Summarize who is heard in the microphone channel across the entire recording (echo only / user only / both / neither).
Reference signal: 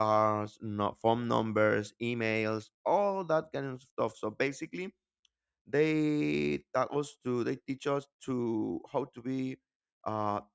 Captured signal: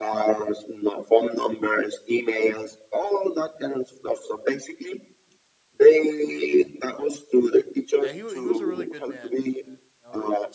both